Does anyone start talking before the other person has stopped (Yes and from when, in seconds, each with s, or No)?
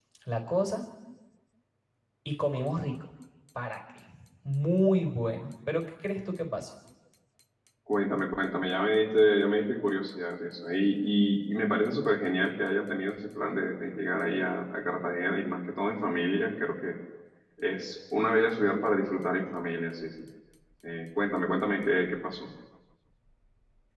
No